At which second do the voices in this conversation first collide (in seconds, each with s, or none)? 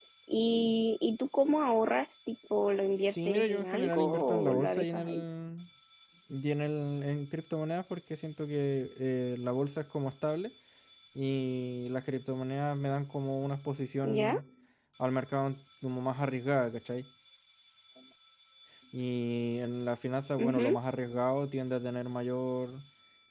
3.1 s